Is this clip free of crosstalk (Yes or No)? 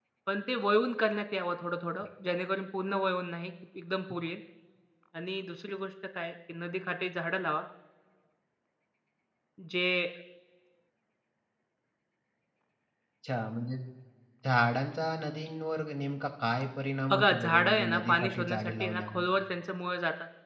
No